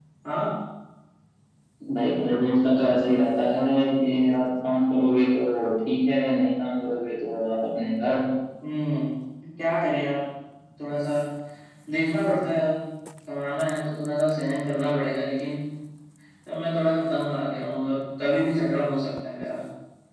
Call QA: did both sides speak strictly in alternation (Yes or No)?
Yes